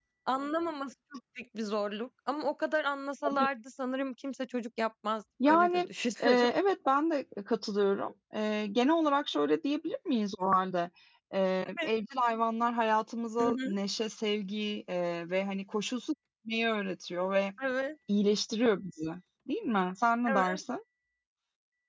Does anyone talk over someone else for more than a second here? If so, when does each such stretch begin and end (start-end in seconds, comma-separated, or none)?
none